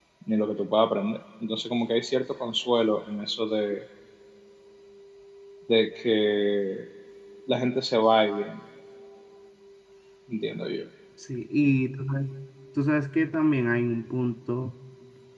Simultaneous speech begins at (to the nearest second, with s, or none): none